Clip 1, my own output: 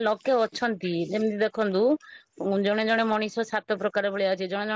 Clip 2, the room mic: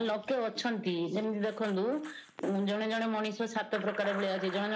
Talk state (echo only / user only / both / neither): echo only